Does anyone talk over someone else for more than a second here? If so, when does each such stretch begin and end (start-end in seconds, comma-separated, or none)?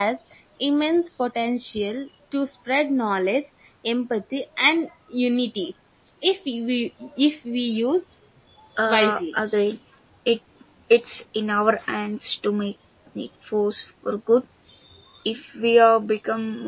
none